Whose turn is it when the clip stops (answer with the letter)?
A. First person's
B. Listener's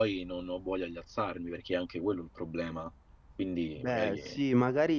B